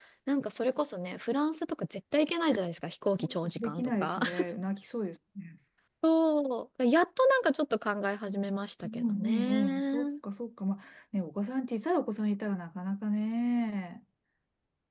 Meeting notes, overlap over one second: present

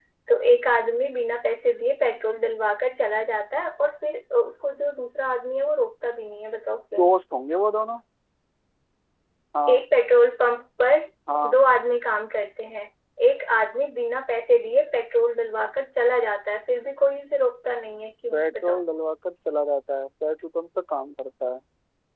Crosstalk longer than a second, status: none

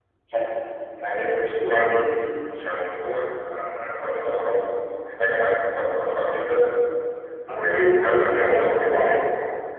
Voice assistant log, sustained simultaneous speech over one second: present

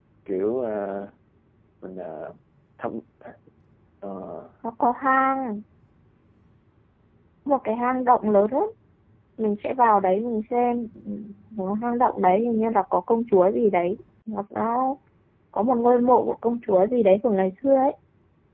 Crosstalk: none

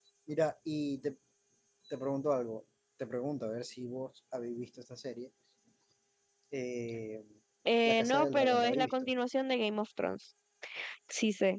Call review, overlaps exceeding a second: present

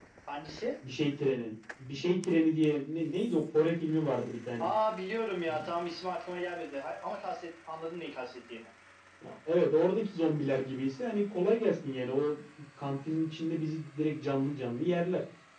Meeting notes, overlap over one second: none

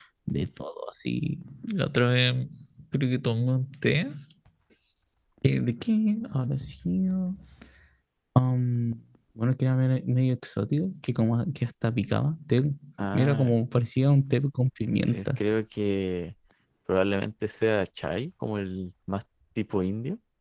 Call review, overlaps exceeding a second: none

